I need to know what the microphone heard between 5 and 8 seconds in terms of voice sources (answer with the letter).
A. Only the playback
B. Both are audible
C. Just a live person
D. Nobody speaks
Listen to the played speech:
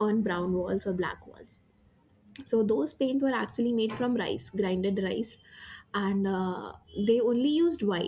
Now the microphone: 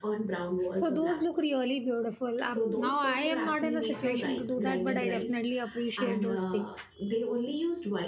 B